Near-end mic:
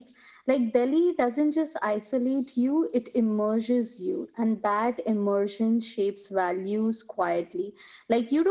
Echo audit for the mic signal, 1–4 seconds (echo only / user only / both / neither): echo only